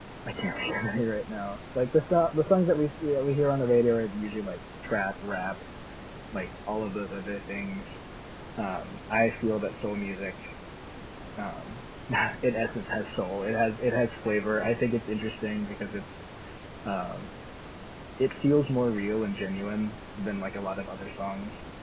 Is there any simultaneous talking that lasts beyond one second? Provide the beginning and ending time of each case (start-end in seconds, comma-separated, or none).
none